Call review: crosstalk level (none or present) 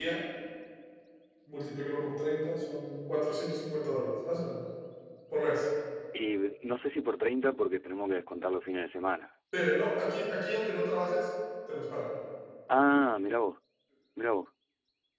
none